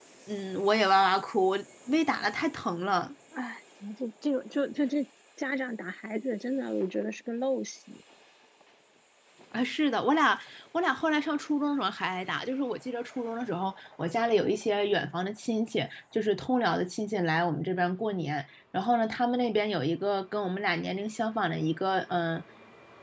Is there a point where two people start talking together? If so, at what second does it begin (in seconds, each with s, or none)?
none